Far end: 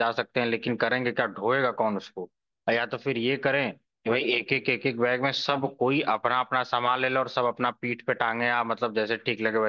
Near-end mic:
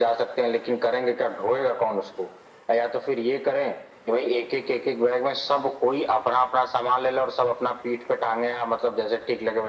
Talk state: echo only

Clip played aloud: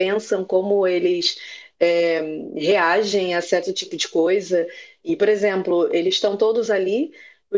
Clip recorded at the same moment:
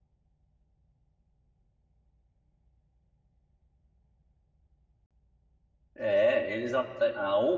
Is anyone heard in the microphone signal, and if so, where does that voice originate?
user only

